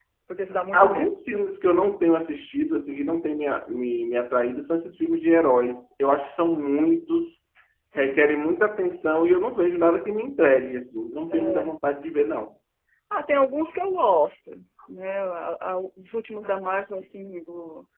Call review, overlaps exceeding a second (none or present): none